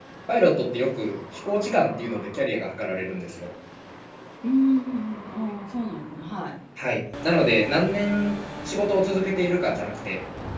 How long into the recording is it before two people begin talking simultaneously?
none

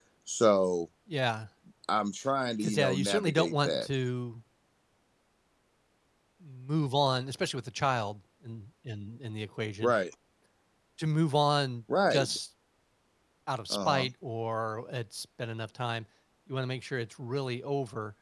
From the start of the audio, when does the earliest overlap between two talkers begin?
2.6 s

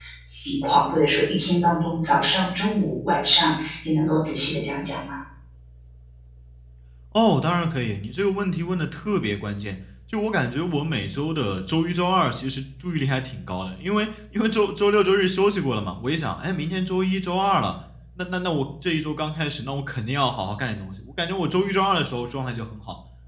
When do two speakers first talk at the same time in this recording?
none

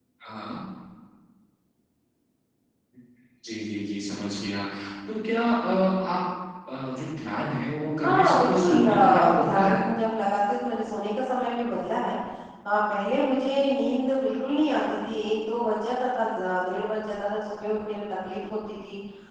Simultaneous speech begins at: 8.0 s

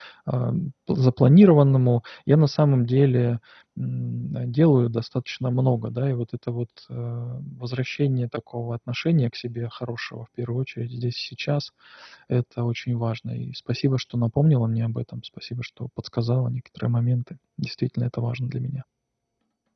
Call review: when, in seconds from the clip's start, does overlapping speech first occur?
none

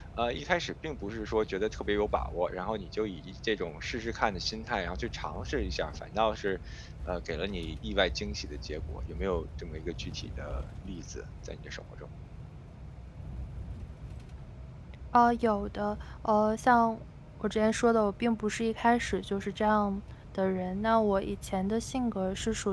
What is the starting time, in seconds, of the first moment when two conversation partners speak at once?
none

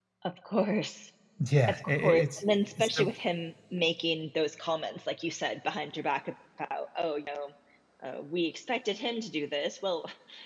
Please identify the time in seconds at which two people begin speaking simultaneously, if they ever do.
1.7 s

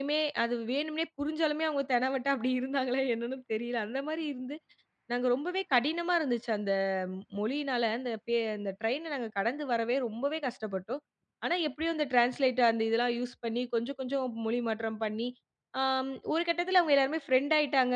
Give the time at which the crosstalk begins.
none

